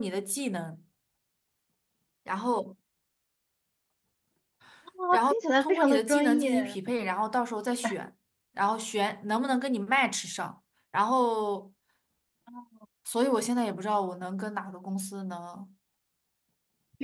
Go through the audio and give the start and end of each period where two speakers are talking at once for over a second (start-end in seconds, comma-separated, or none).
5.1-6.8